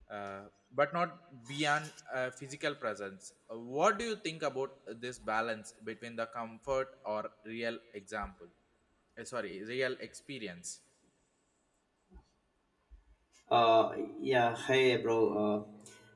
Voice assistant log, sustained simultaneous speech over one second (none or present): none